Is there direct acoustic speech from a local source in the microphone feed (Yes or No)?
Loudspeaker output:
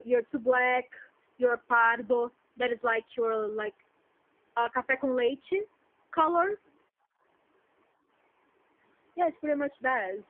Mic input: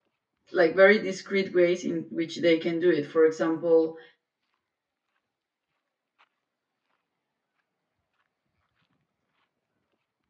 Yes